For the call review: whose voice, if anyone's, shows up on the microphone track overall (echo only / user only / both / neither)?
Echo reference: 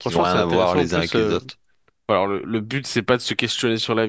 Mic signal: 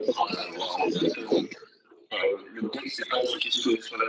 echo only